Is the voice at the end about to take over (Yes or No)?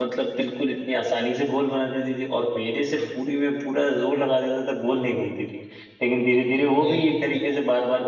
No